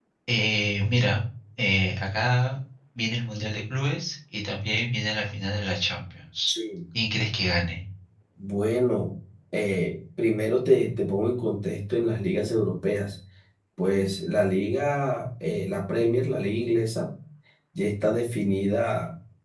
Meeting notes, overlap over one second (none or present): none